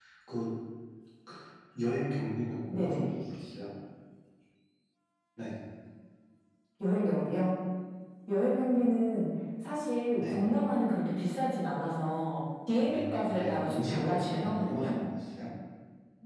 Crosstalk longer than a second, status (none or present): present